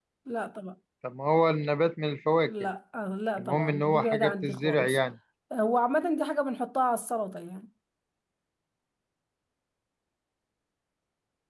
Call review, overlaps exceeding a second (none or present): present